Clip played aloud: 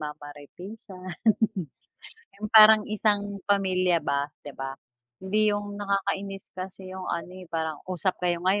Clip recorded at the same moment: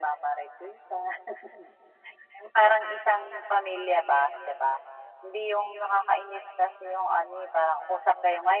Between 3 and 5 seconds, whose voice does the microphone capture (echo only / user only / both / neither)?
echo only